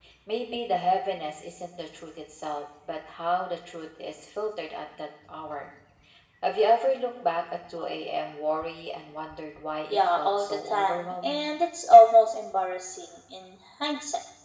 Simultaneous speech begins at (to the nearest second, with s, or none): 10 s